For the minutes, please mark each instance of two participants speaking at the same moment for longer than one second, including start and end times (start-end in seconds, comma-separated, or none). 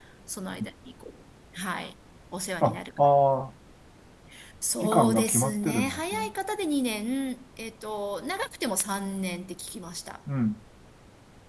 4.8-6.3